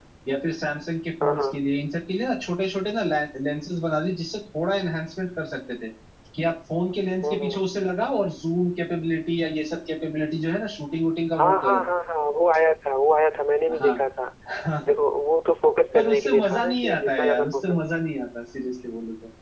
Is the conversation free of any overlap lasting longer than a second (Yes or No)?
No